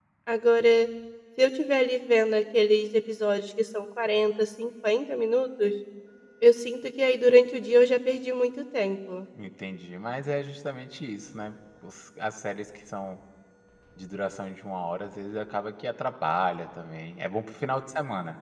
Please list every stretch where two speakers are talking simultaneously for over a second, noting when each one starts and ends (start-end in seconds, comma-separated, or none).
none